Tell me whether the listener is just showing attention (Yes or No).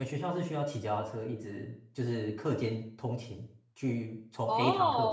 No